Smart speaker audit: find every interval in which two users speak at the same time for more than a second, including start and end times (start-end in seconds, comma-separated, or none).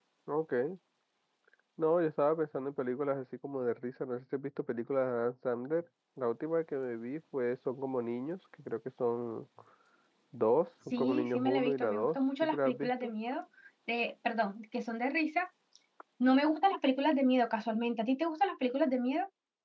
10.9-13.1